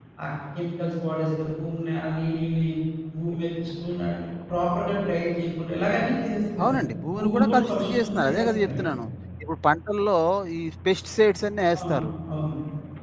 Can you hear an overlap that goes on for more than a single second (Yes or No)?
Yes